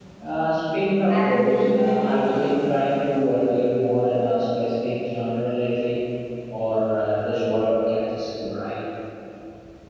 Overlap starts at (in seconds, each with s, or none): 1.1 s